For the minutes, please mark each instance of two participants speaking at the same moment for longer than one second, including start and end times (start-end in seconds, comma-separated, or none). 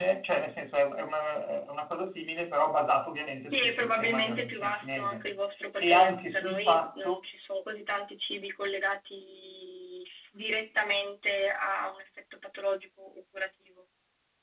3.5-5.3, 5.8-7.2